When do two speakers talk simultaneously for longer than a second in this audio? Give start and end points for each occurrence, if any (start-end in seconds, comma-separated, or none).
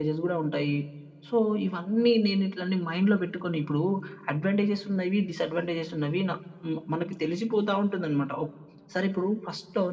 none